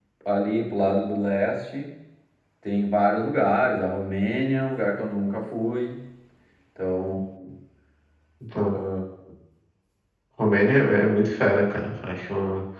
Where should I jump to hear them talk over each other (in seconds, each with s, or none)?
none